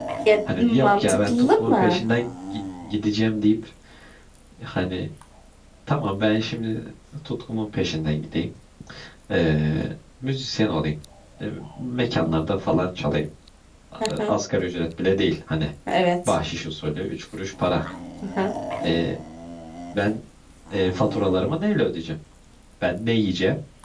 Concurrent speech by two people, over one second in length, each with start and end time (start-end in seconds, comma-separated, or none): 0.6-2.0